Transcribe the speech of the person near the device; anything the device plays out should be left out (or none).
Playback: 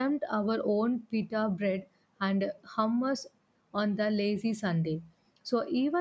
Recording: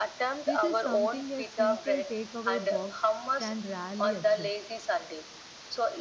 which is something a simple takeaway box can rarely achieve.